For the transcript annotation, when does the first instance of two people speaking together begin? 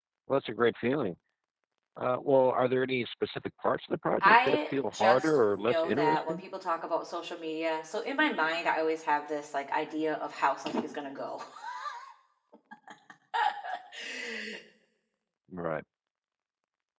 4.2 s

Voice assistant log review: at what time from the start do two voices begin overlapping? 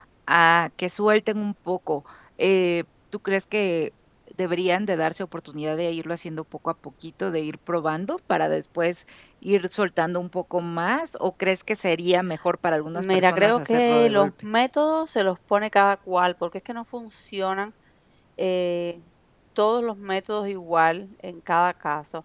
12.9 s

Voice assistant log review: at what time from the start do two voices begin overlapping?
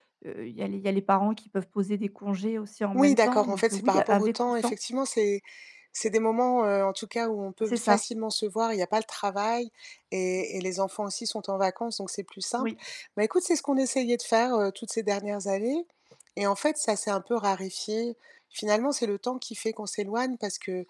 2.9 s

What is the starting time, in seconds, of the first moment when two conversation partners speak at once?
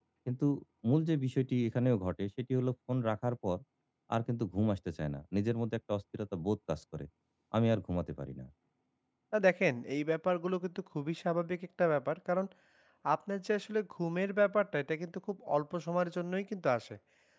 none

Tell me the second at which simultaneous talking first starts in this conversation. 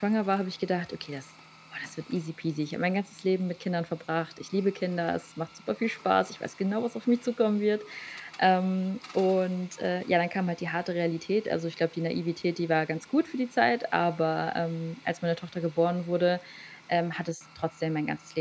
none

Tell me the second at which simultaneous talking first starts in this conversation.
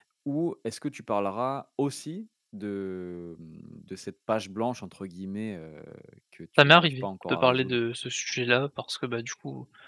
6.6 s

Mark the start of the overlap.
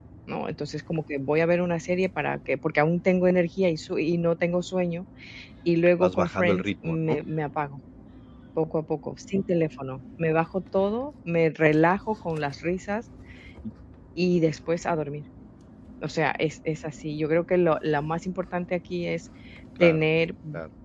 6.0 s

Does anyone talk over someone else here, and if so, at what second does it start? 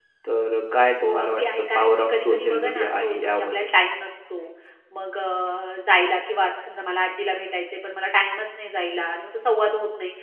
1.0 s

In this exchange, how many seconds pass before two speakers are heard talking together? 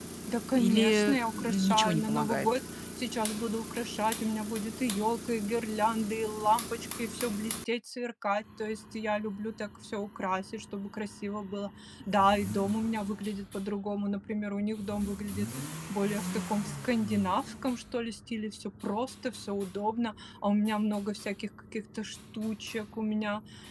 0.5 s

